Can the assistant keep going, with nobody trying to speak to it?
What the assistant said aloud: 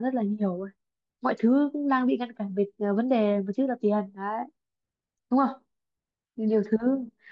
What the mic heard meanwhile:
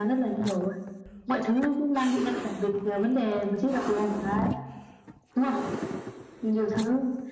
Yes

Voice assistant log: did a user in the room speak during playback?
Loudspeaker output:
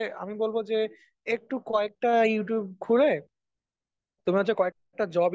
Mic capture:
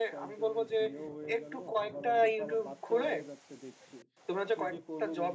Yes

